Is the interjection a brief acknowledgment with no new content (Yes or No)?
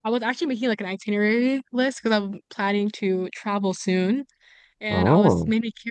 Yes